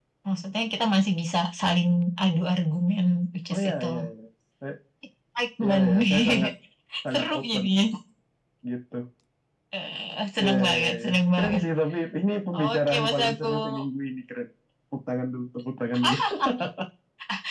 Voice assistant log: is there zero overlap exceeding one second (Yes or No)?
No